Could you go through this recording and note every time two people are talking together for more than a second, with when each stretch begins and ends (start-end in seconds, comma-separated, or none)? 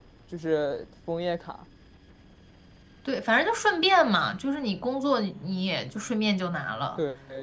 none